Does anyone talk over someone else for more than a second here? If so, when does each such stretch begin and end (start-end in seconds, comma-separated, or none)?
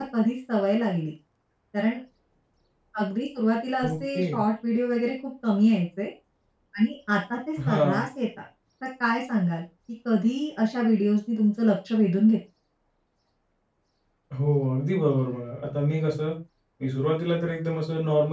none